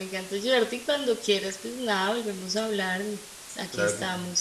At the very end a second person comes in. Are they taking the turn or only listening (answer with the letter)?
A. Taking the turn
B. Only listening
A